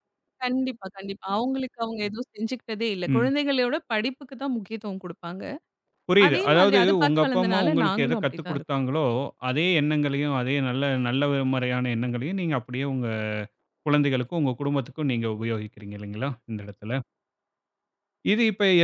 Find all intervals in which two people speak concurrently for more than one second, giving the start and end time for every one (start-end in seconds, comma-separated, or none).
6.3-8.6